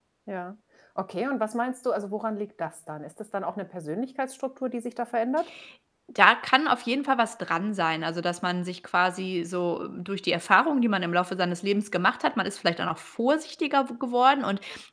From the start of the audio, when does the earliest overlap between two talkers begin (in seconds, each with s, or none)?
none